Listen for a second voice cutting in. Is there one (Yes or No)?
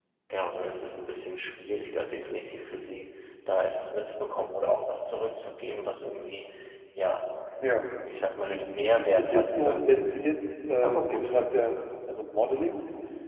Yes